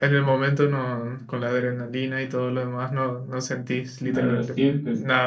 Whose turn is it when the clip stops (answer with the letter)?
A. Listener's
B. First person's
A